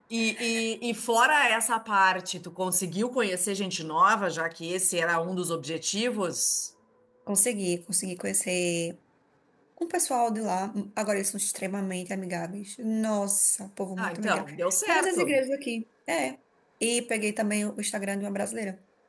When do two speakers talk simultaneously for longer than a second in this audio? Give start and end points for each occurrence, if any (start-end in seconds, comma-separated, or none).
14.0-15.4